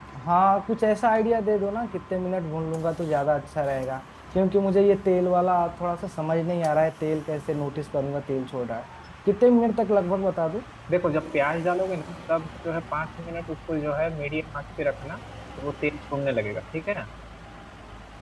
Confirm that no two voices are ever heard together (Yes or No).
Yes